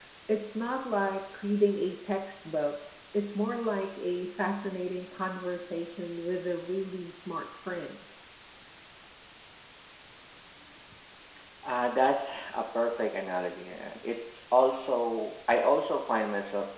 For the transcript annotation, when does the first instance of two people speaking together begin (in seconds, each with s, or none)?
none